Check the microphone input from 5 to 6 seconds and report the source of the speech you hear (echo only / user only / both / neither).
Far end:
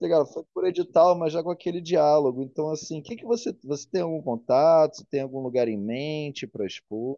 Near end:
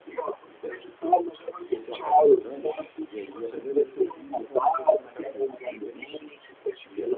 both